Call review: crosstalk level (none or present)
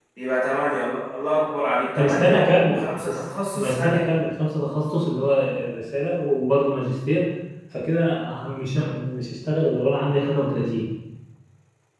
present